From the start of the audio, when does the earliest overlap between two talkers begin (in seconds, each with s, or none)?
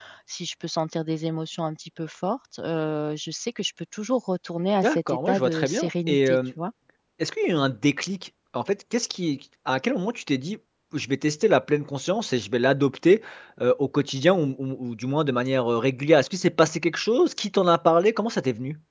4.8 s